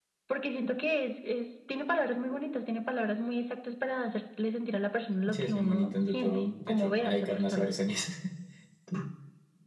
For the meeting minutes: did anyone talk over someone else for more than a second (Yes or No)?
Yes